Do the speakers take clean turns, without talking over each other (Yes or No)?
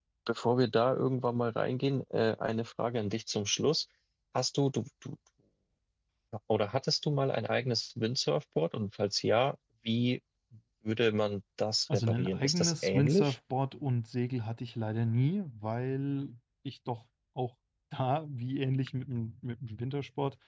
No